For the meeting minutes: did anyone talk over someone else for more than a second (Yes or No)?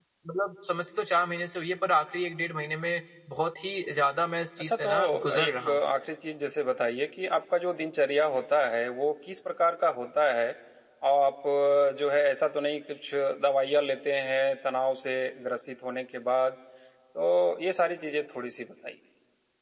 Yes